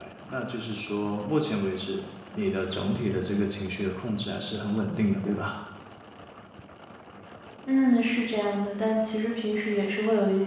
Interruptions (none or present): none